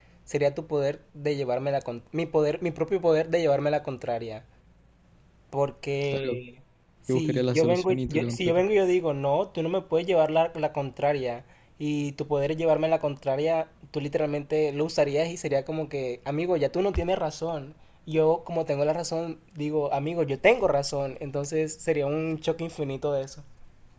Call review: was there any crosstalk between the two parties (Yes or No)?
Yes